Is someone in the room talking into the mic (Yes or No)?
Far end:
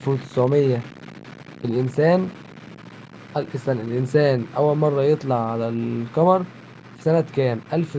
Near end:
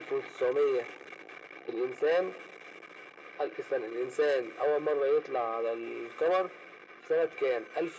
No